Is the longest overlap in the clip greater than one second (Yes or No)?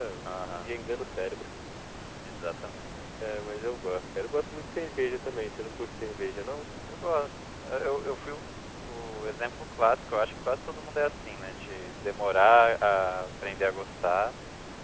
No